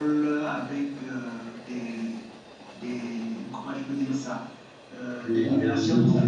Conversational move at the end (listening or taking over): taking over